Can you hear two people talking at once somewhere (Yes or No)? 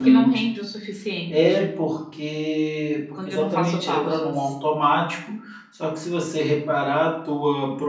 Yes